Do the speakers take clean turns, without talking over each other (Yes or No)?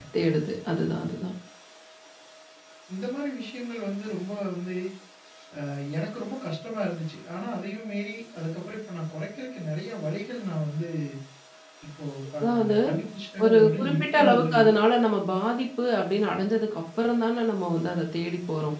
No